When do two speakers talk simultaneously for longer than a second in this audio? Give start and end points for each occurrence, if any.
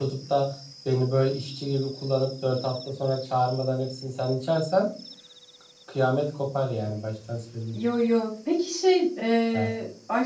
none

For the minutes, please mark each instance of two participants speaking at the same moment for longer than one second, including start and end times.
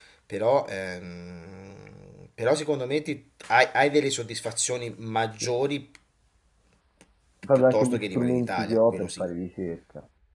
7.5-9.2

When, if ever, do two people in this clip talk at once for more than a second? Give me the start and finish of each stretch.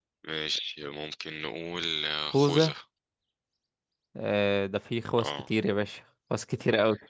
none

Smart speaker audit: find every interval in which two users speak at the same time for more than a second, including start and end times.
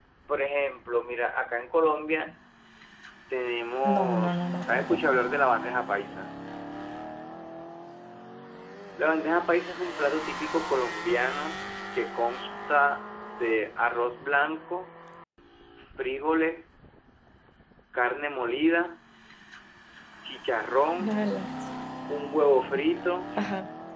3.8-5.2

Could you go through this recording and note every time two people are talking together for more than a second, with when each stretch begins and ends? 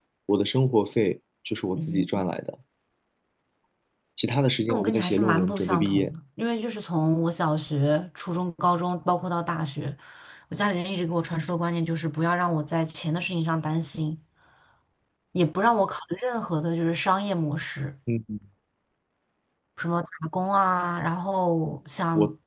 4.7-6.1

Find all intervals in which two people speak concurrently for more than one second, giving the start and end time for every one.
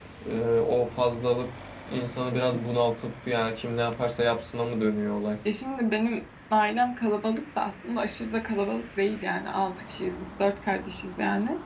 none

